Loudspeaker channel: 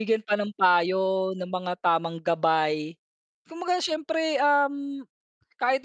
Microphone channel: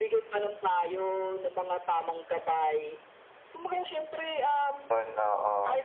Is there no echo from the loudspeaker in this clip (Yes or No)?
No